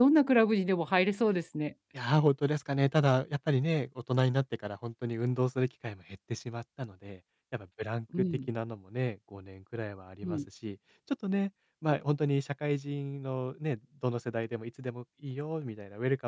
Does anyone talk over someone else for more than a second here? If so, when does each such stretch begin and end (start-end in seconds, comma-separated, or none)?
none